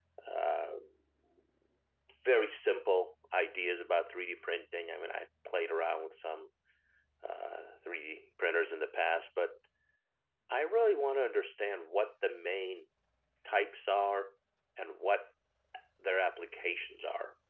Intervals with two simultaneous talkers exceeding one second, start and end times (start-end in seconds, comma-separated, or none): none